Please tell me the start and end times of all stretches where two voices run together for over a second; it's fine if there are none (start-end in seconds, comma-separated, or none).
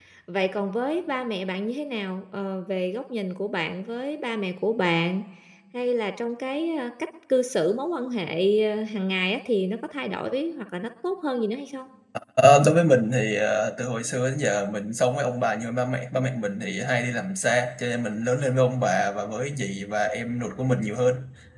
none